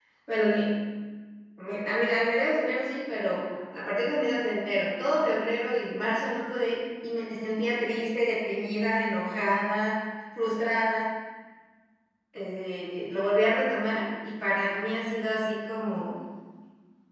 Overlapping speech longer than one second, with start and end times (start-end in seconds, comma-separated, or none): none